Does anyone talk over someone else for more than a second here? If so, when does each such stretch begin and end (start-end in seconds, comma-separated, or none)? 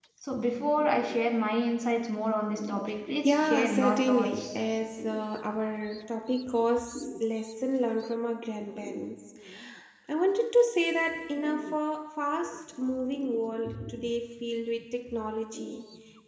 3.2-4.5